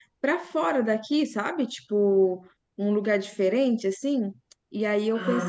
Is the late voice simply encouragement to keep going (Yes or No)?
Yes